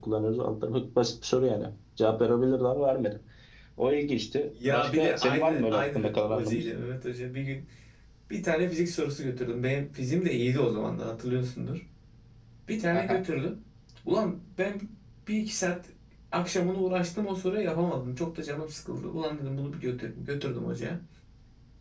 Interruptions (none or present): present